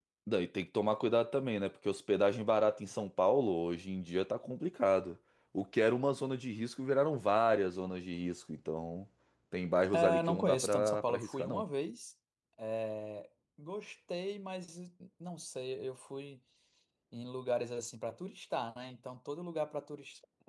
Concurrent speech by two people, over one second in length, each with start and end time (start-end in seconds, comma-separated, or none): 9.9-11.6